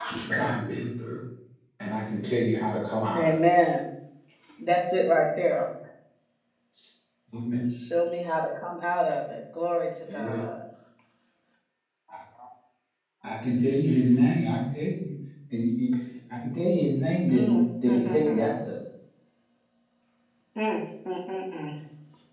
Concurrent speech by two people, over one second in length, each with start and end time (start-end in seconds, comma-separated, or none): 17.3-18.5